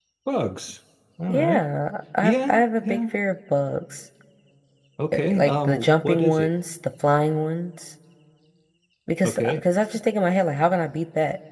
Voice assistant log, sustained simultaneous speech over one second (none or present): present